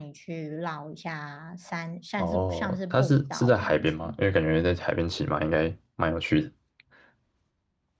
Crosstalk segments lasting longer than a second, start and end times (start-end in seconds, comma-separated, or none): 2.2-4.0